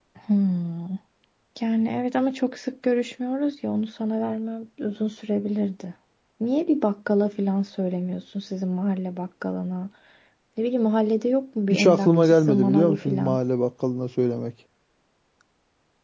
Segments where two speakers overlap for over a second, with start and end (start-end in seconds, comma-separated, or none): 11.7-13.4